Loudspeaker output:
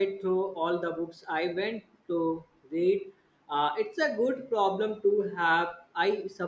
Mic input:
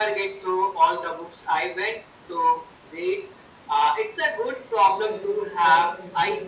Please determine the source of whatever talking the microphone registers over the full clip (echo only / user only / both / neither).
both